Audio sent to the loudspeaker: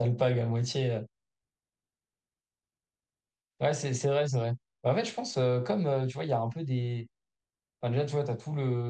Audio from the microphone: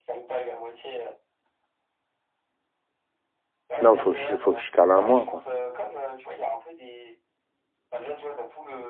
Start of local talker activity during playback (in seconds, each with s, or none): 3.8 s